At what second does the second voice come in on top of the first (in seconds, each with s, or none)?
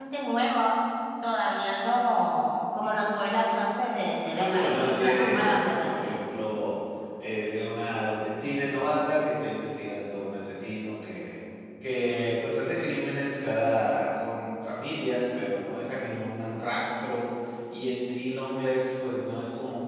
4.4 s